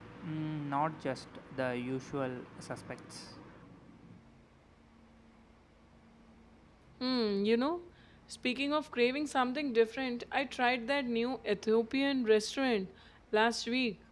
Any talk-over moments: No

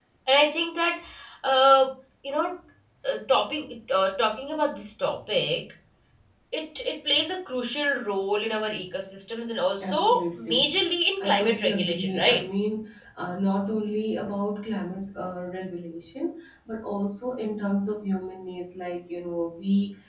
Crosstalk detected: Yes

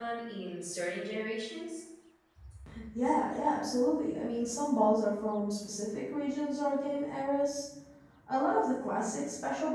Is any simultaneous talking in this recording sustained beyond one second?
No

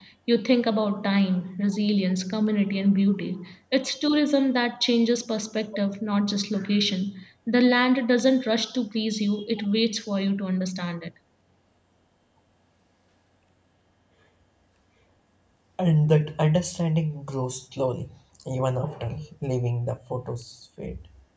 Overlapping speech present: No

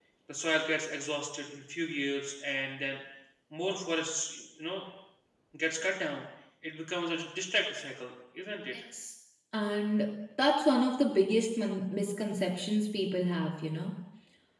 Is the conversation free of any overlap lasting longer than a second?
Yes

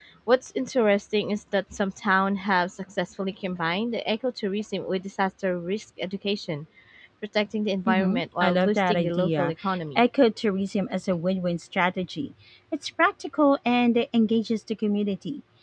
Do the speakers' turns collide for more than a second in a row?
Yes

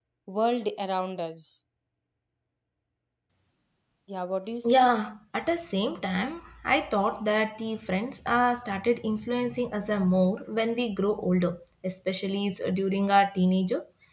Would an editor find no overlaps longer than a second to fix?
Yes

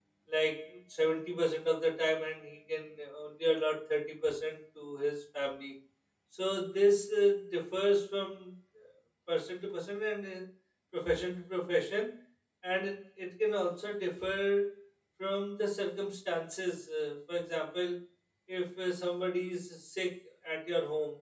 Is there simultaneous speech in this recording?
No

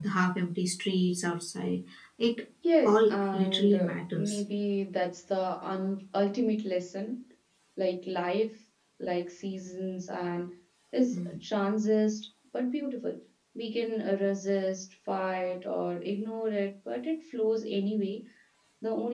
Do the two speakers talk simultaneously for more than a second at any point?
Yes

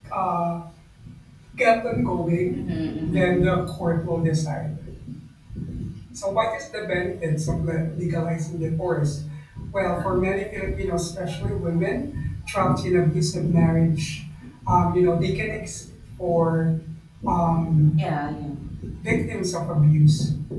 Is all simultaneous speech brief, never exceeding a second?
Yes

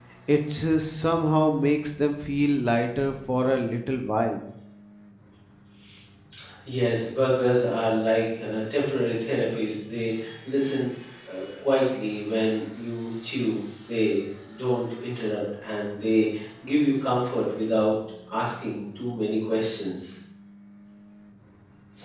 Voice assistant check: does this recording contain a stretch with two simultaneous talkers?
No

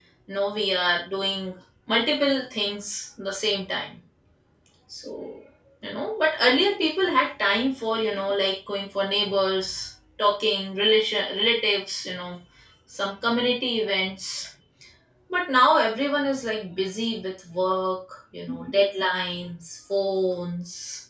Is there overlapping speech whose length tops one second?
No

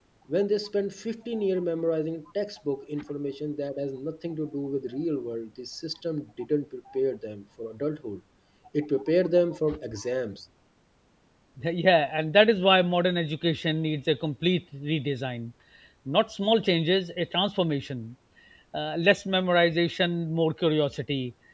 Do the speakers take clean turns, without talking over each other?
Yes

